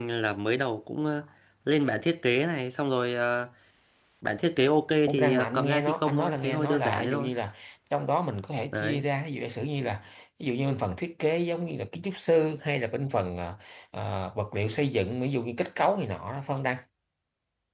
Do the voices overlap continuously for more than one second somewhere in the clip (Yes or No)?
Yes